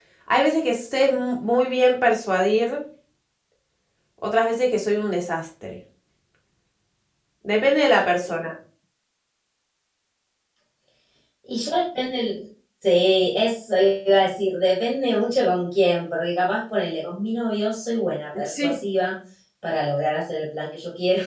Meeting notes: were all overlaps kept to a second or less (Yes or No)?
Yes